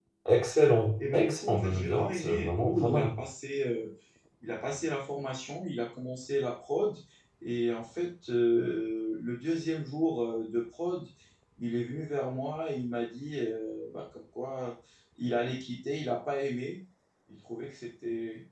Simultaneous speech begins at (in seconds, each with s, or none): 1.0 s